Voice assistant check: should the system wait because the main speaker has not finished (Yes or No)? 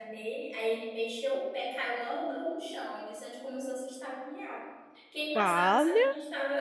Yes